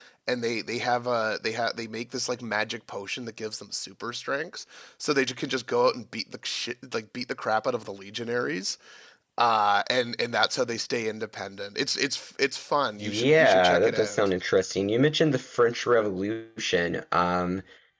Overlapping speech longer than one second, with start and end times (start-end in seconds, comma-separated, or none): 13.0-14.3